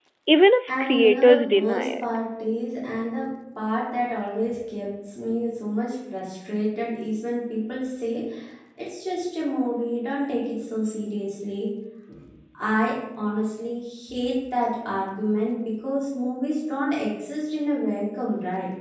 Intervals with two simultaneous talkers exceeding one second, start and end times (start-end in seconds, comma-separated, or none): 0.7-2.0